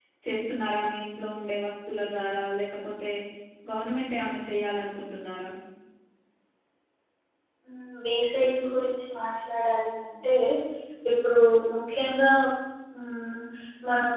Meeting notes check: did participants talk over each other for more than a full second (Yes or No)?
No